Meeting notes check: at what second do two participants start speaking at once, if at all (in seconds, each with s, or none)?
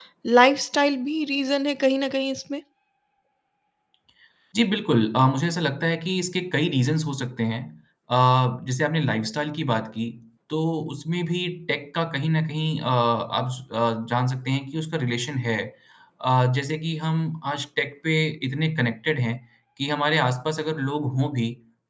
none